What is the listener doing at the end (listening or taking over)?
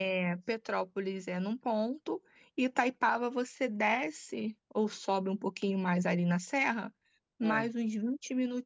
listening